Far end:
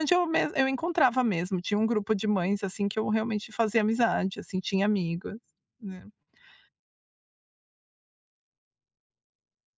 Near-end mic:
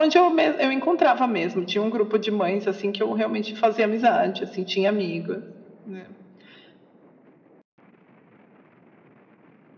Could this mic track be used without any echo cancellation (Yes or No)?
No